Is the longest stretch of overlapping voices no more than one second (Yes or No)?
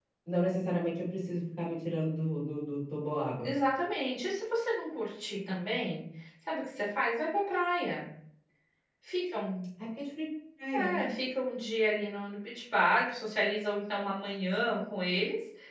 Yes